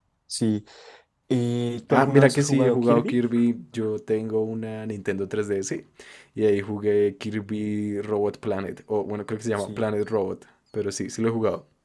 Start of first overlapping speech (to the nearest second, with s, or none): 2 s